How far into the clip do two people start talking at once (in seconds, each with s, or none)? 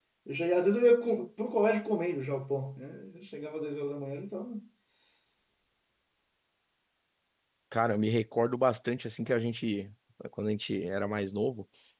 none